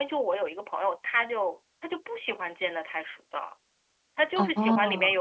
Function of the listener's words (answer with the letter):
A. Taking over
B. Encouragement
B